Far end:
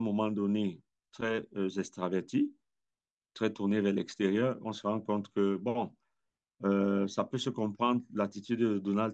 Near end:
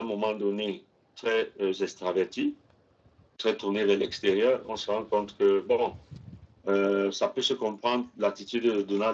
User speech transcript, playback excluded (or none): none